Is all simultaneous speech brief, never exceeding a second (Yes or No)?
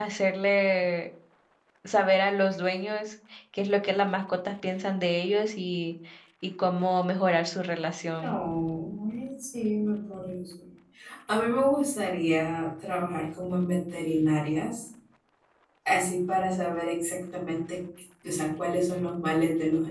Yes